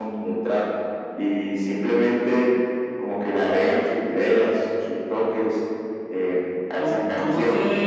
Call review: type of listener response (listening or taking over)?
taking over